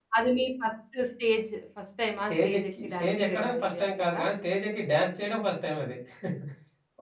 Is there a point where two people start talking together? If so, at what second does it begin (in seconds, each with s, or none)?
2.3 s